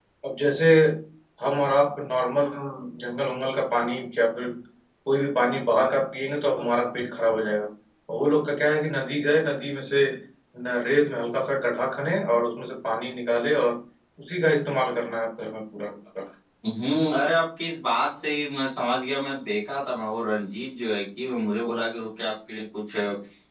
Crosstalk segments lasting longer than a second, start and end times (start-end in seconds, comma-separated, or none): none